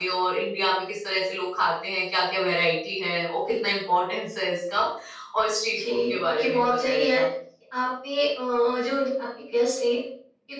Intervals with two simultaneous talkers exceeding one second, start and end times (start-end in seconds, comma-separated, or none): 5.8-7.2